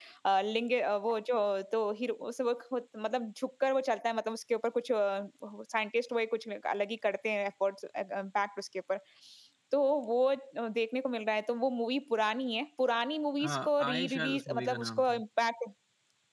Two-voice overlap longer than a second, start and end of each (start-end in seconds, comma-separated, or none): 13.4-15.2